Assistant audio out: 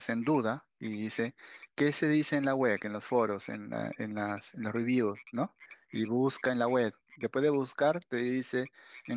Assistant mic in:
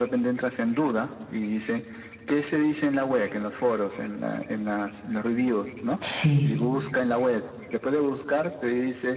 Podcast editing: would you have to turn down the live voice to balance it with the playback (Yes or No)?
Yes